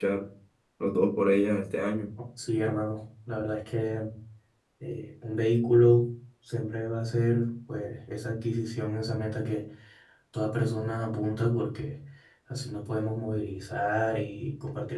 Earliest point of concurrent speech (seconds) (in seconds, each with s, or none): none